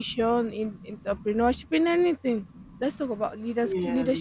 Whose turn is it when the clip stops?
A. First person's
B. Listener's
A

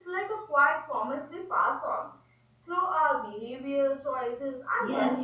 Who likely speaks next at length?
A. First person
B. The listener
B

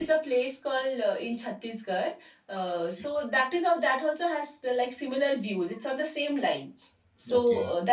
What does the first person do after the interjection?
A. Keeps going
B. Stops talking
A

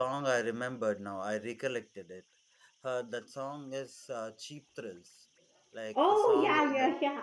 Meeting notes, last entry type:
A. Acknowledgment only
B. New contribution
B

